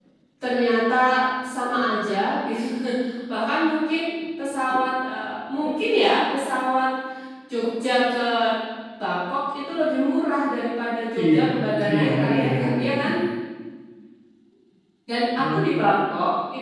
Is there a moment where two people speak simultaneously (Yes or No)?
Yes